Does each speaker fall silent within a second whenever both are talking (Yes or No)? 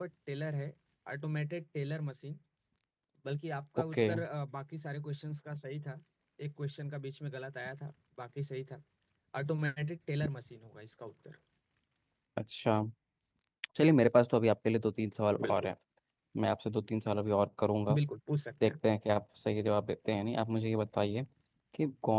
Yes